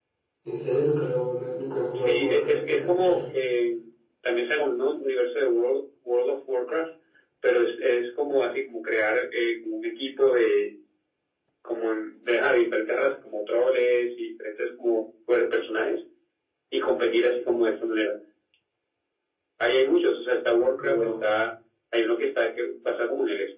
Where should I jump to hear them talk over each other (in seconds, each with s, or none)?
1.9 s